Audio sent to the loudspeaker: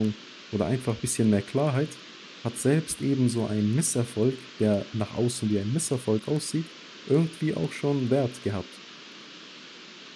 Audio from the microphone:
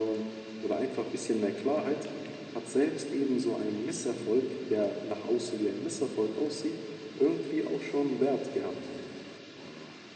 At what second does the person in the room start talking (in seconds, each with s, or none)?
none